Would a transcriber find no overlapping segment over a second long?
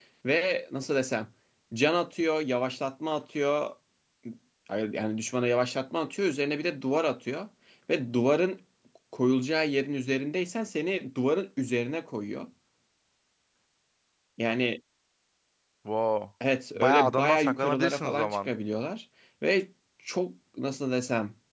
No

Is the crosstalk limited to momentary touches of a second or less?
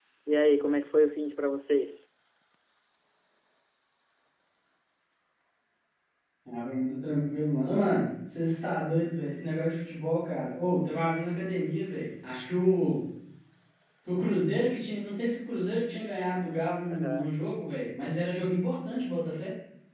Yes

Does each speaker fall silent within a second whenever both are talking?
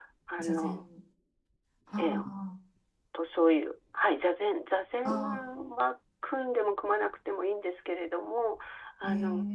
Yes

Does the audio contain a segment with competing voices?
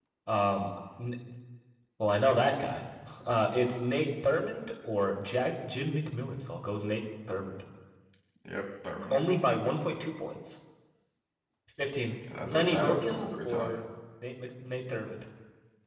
Yes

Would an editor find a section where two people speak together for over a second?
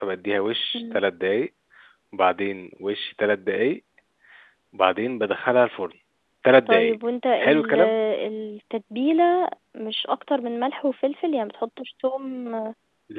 No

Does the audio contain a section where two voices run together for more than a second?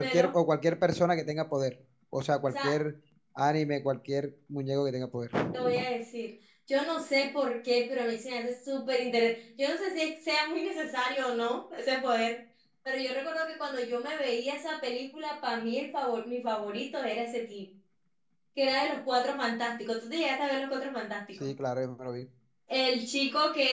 No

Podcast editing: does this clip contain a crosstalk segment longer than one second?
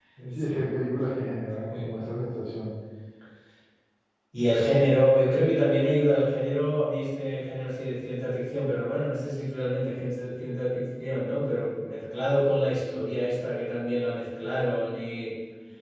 No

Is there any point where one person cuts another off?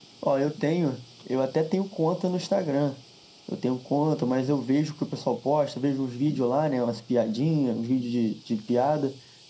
No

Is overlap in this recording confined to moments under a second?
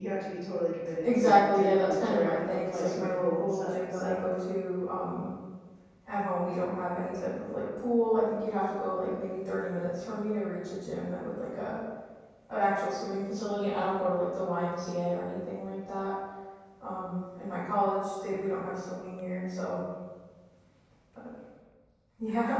No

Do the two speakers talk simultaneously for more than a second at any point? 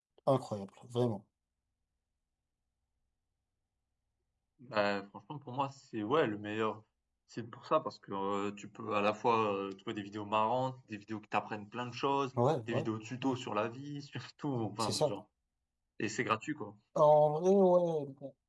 No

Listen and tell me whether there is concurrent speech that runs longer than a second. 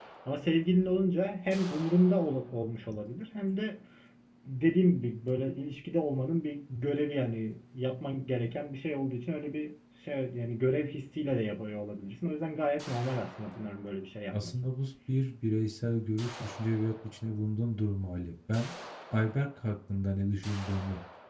No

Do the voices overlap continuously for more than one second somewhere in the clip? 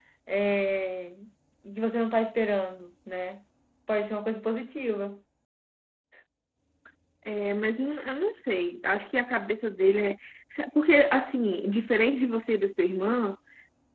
No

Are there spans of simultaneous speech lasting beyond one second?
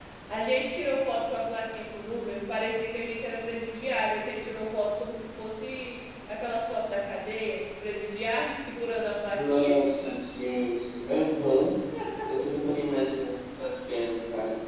No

